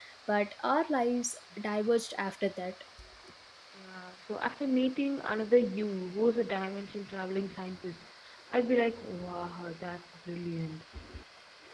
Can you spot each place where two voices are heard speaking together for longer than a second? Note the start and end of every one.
none

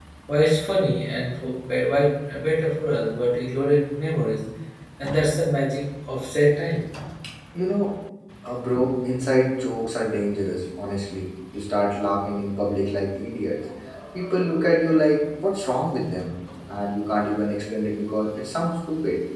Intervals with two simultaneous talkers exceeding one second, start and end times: none

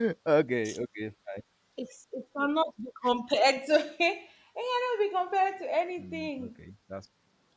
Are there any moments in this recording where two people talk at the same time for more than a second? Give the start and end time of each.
none

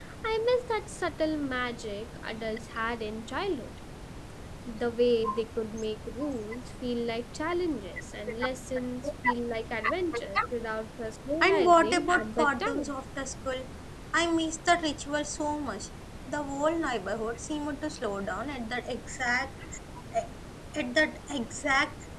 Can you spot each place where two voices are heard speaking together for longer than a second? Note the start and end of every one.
11.4-12.9

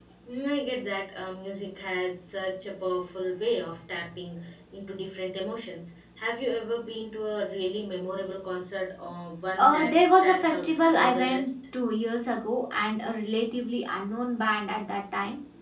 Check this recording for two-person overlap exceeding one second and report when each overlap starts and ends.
9.6-11.5

